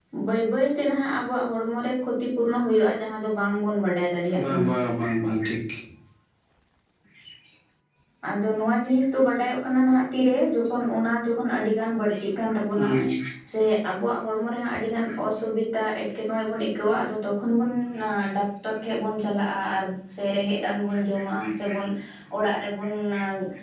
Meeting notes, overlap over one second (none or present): none